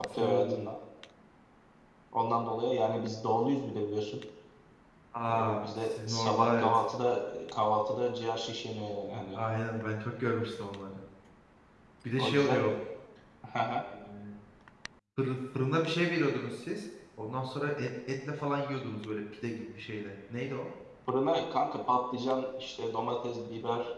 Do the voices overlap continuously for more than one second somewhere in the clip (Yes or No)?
Yes